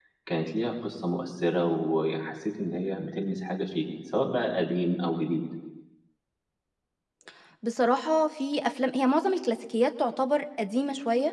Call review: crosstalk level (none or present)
none